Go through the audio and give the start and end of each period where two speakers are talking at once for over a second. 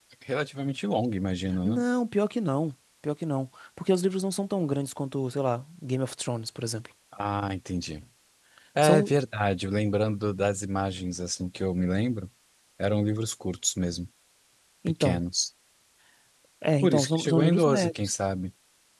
16.8-18.1

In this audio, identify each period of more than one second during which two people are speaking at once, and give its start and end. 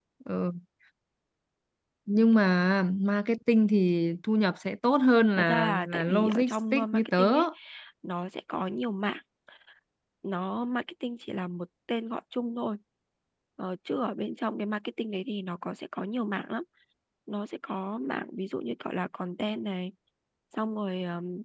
5.4-7.3

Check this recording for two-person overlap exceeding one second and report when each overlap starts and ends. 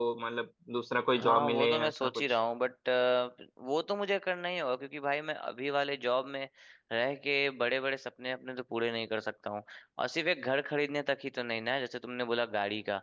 1.1-2.4

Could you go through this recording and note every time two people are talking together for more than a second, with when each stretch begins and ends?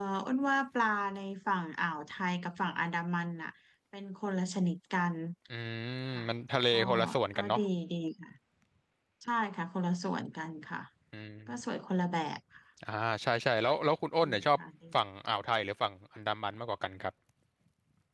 none

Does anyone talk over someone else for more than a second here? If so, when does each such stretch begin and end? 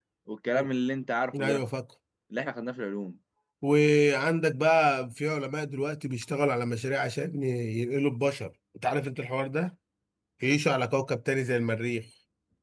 none

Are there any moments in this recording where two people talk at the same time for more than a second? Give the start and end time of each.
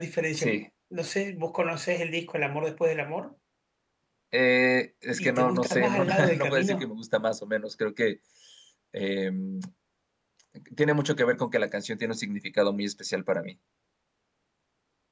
5.2-6.9

